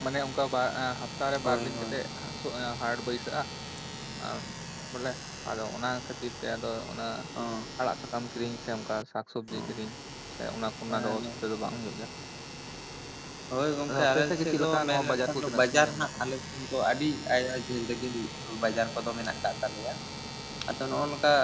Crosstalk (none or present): present